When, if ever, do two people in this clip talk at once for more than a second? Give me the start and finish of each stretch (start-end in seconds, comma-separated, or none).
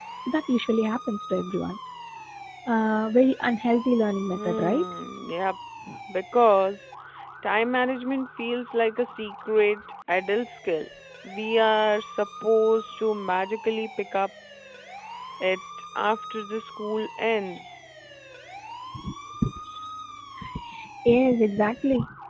none